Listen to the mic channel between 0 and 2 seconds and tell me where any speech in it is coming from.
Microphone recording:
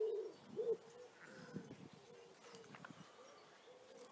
neither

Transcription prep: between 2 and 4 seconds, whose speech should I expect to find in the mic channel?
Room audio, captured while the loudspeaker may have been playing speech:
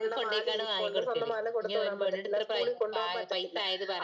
echo only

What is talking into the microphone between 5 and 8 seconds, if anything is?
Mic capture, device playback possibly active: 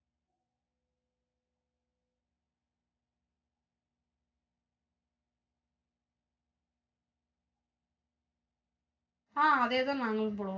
neither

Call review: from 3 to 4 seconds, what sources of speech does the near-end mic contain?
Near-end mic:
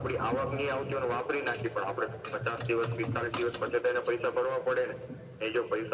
echo only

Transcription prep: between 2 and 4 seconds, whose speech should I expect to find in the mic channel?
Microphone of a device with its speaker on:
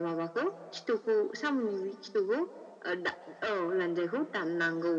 echo only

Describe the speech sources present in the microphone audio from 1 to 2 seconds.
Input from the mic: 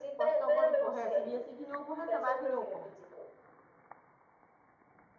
both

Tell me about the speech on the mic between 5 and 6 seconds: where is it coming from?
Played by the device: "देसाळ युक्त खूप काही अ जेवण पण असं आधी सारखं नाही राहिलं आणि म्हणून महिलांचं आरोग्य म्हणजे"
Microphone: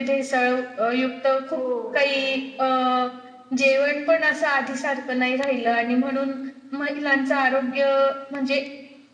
echo only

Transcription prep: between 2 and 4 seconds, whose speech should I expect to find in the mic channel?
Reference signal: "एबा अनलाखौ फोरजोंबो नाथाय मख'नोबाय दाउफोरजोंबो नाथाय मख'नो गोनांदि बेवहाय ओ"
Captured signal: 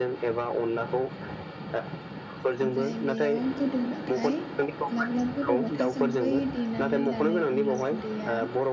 both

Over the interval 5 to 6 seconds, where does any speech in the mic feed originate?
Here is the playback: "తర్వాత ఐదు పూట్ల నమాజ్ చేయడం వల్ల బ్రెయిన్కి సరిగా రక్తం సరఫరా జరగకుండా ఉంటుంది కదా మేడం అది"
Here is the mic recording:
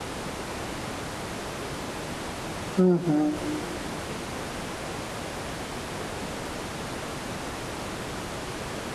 neither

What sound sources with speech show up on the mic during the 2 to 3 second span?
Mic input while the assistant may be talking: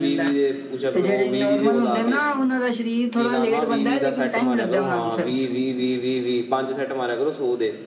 both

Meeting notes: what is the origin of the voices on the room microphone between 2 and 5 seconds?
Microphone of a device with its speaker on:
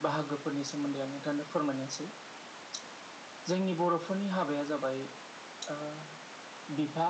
echo only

